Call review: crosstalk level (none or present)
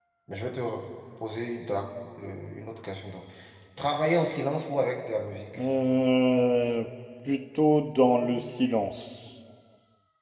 none